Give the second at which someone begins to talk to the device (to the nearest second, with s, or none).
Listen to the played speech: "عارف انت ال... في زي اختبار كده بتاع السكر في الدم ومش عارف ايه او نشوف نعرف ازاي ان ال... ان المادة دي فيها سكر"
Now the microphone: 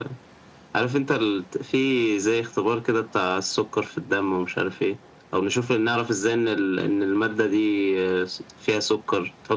none